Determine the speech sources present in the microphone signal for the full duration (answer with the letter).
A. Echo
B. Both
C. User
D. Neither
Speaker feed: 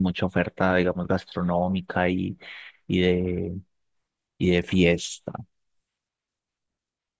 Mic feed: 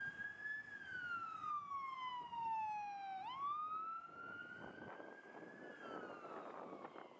D